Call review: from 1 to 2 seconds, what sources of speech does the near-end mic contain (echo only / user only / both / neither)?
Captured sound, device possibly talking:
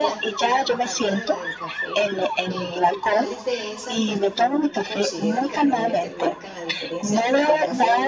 both